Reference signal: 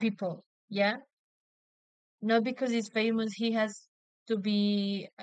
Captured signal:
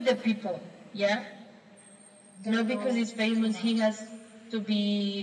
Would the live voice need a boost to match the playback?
Yes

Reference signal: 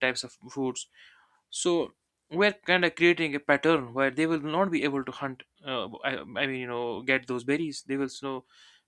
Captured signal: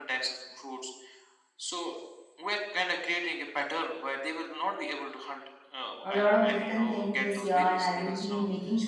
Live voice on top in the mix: Yes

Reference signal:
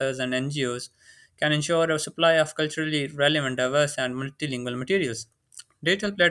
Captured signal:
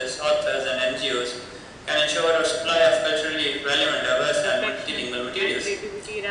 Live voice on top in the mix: No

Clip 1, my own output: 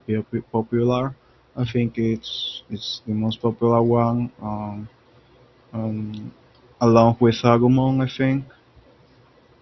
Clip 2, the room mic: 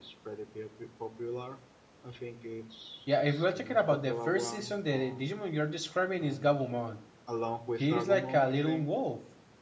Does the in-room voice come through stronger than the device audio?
Yes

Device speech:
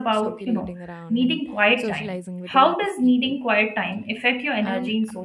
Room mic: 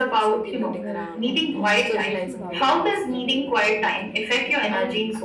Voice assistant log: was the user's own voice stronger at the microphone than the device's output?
No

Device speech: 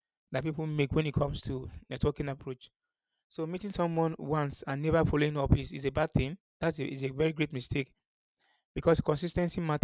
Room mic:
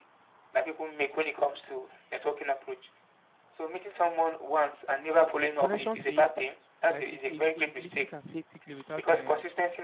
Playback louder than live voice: Yes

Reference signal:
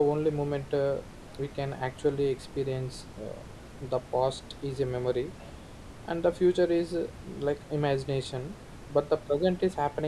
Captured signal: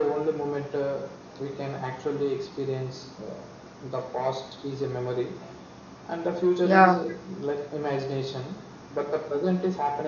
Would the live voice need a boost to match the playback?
No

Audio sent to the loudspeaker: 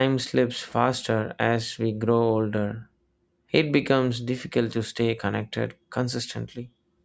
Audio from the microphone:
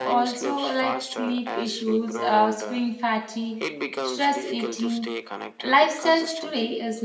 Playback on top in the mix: No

